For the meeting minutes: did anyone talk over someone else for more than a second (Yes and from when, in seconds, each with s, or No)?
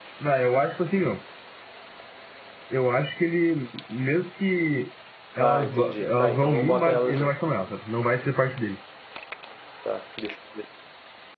Yes, from 5.4 s